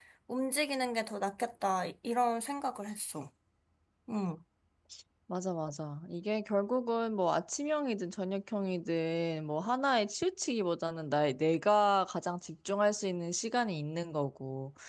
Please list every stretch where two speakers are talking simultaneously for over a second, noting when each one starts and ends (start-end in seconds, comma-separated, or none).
none